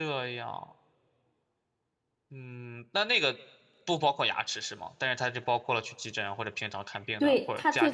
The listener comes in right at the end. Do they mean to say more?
Yes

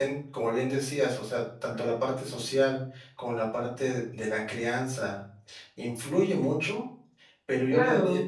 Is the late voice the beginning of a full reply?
No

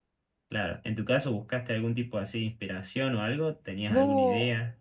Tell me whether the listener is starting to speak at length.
Yes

